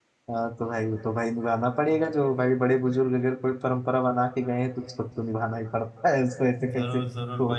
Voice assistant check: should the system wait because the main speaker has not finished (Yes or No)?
No